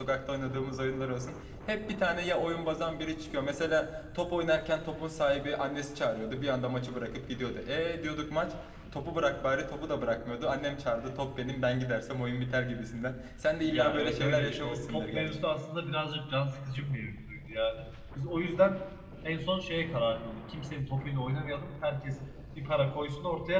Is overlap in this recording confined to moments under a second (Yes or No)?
No